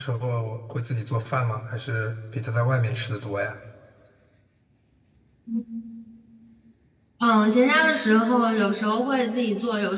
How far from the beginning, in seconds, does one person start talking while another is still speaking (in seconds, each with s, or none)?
none